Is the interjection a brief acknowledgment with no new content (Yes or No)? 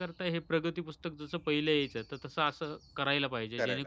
Yes